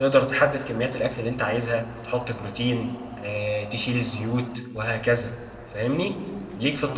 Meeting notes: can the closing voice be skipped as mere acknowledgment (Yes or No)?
No